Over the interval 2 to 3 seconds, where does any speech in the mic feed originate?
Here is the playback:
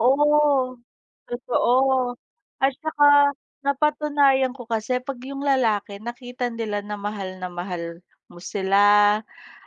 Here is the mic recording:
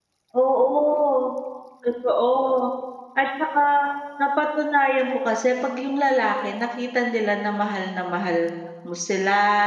echo only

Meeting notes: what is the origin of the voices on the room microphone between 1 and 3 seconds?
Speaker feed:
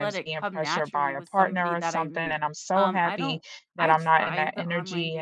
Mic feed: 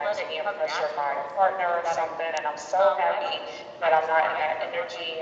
echo only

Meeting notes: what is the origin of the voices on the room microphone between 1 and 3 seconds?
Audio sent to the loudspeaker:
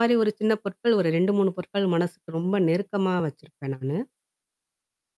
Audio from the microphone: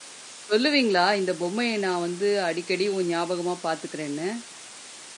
user only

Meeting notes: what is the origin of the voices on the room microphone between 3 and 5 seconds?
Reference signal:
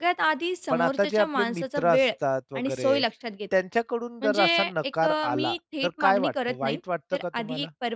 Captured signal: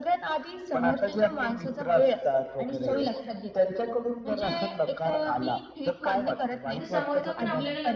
echo only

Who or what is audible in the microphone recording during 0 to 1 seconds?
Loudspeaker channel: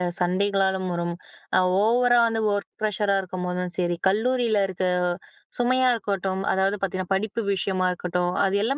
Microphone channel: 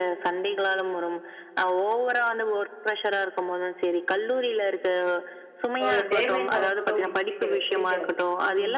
echo only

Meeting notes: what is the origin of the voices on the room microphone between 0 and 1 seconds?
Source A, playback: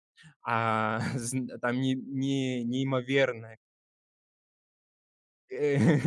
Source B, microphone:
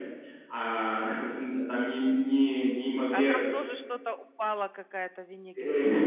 echo only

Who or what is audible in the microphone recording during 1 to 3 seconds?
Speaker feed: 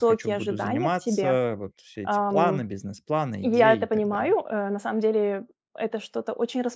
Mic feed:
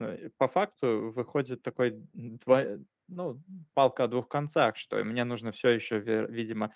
user only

